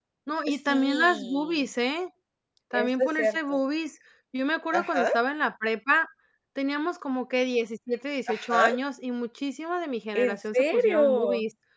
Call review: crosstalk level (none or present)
present